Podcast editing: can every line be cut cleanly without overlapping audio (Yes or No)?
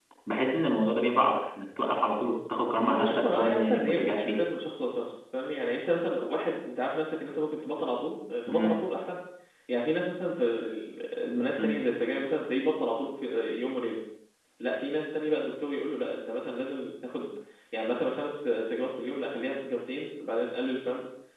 No